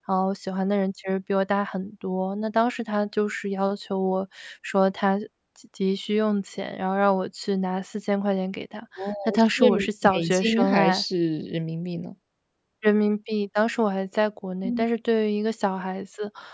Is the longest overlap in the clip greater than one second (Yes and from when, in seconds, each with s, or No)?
Yes, from 9.3 s